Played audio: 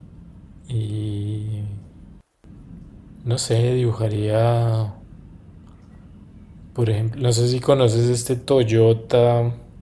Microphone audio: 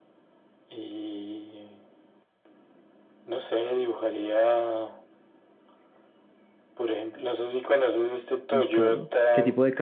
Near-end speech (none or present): present